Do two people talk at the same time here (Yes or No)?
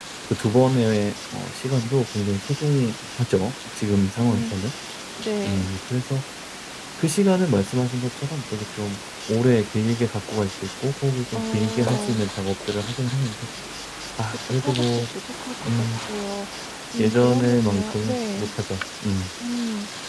Yes